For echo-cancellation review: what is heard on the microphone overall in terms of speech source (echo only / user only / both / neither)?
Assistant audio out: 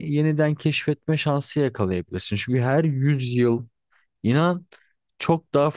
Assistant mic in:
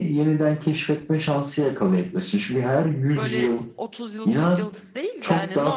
both